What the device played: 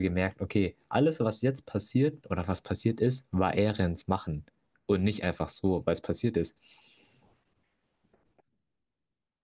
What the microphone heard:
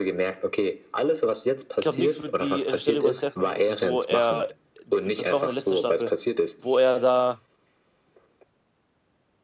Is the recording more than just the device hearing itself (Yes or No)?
Yes